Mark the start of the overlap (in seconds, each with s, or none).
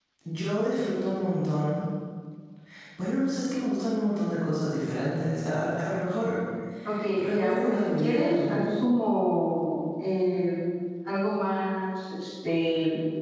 7.1 s